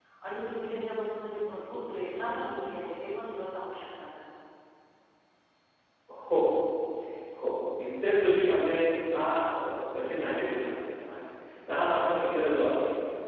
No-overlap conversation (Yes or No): Yes